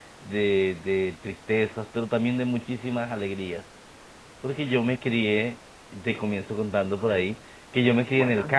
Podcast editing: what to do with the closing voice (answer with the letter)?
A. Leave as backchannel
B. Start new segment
A